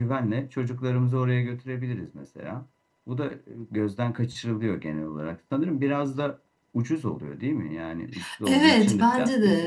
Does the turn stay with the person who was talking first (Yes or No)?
No